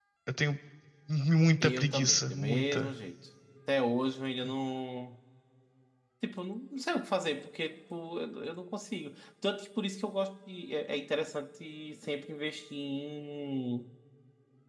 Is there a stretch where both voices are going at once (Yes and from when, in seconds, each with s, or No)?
Yes, from 1.6 s